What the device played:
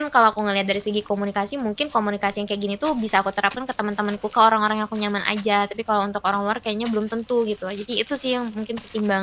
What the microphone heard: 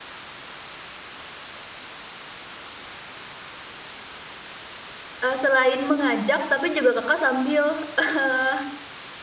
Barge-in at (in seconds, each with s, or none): 5.2 s